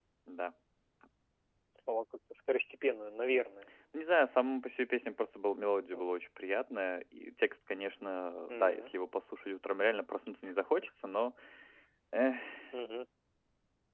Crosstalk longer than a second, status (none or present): none